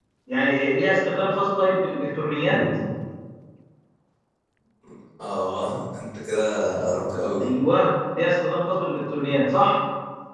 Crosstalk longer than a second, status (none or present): none